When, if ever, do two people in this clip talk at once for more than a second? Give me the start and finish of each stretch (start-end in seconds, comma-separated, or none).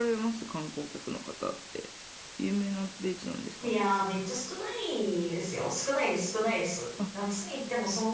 none